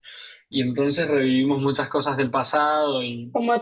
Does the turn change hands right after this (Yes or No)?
Yes